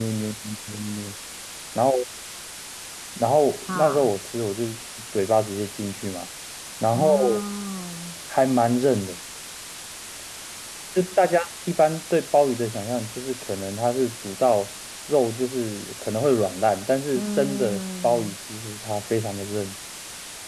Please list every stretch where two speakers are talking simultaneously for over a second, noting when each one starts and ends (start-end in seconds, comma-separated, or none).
17.1-18.4